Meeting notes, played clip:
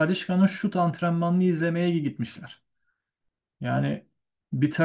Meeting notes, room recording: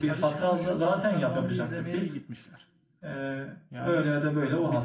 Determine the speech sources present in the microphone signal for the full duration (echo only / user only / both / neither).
both